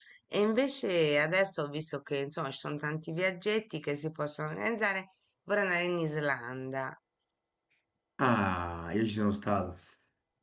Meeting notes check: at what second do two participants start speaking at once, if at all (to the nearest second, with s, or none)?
none